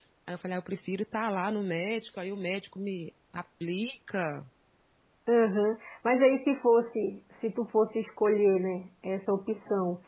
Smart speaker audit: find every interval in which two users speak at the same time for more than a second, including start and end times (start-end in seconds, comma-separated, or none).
none